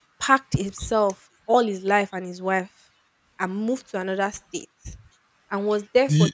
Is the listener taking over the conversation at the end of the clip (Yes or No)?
No